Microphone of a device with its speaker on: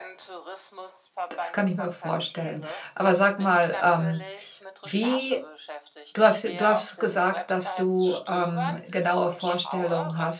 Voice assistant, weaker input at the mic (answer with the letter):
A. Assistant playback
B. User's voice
A